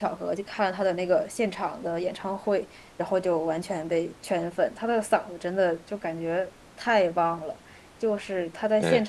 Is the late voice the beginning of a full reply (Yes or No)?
No